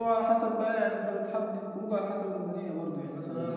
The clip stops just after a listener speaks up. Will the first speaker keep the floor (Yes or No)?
Yes